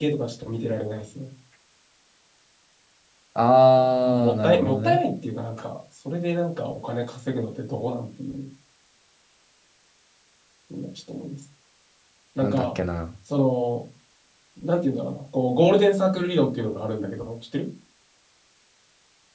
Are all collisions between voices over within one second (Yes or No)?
No